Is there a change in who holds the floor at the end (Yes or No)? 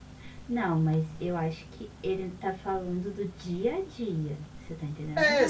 Yes